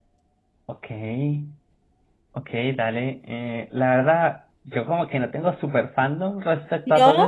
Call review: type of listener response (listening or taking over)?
listening